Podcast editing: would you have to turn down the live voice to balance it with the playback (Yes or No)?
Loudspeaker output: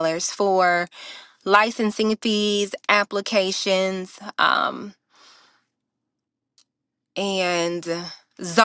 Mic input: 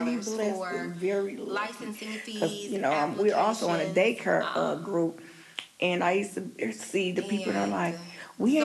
Yes